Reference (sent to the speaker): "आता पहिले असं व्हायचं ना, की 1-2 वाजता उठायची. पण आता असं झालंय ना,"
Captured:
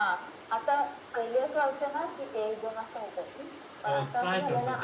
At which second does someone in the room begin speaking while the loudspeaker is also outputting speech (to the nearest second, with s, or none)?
4 s